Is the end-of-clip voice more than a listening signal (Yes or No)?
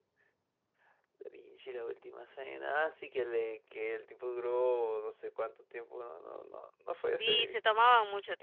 Yes